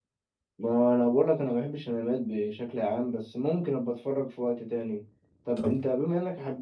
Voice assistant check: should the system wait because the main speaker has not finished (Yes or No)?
Yes